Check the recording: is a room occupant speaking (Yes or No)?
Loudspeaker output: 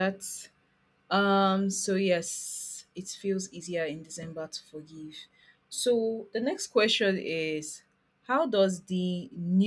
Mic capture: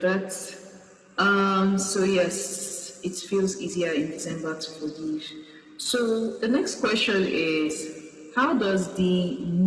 No